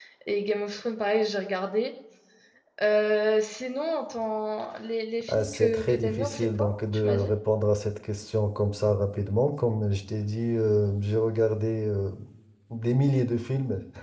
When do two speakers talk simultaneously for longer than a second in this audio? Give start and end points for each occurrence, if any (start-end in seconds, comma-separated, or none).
5.3-7.3